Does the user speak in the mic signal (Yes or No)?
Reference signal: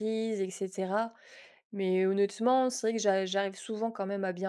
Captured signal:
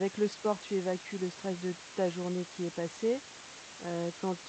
Yes